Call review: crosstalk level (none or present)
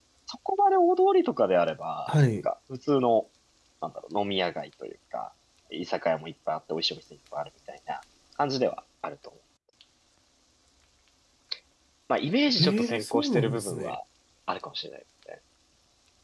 present